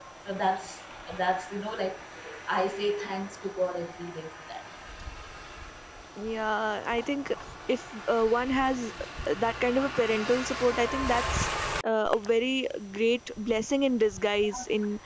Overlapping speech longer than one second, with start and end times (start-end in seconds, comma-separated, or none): none